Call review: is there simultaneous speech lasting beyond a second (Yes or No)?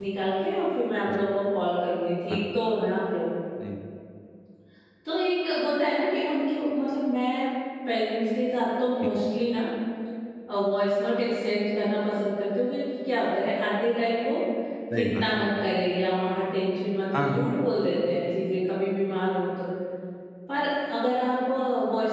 No